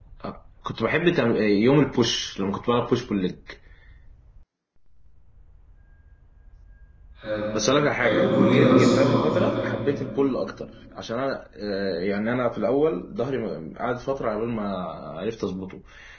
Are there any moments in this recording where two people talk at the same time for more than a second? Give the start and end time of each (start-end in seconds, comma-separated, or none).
8.0-9.7